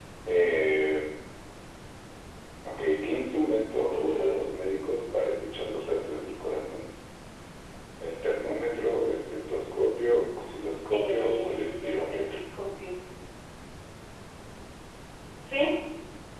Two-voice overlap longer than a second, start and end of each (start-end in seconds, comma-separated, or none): 10.9-12.2